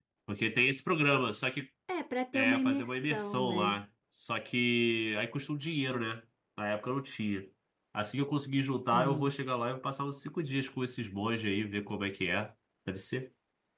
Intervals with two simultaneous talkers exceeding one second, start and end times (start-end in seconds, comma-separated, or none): 2.3-3.8